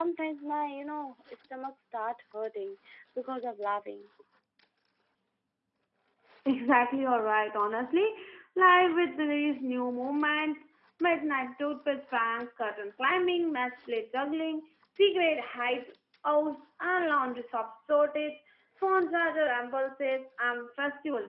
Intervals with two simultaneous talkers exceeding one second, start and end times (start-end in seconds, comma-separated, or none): none